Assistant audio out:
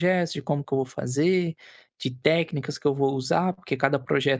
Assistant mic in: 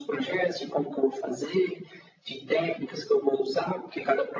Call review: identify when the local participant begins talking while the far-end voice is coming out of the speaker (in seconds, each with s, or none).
none